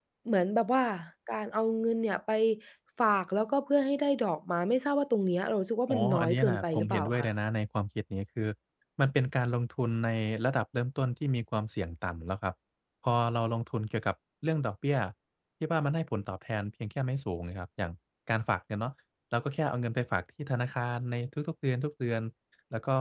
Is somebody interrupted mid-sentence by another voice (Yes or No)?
Yes